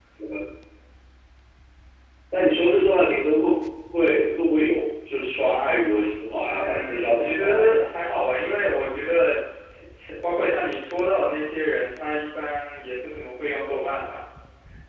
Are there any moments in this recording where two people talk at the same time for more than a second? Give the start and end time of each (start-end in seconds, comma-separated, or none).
6.5-7.9